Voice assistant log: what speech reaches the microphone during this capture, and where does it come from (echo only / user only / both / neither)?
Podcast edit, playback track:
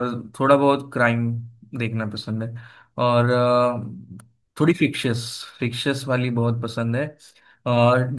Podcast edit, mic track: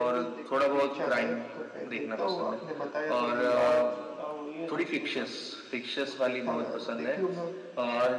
both